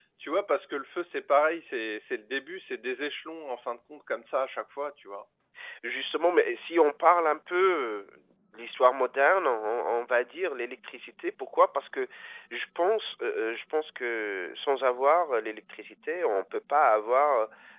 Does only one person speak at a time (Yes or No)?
Yes